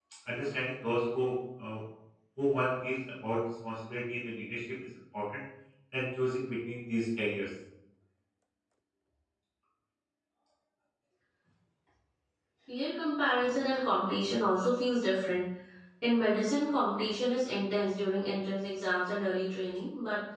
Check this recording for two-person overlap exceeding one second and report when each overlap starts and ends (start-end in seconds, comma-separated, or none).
none